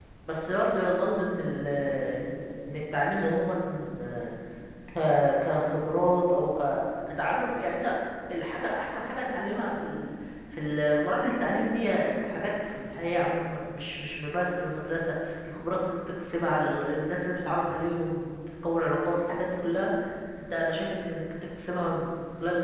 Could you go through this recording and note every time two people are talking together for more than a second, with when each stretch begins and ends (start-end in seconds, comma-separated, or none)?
none